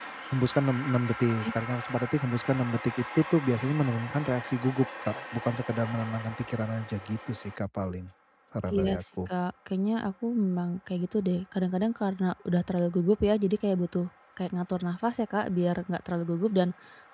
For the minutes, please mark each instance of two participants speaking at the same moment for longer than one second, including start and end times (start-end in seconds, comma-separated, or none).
none